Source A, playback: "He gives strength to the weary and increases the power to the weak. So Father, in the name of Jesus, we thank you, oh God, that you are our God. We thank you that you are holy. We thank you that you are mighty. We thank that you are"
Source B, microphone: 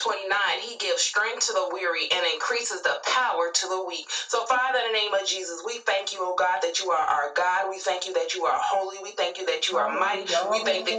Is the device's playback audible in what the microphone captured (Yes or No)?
Yes